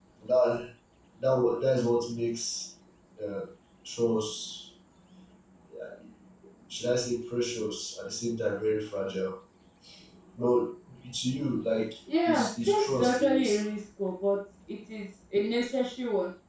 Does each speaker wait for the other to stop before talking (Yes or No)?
No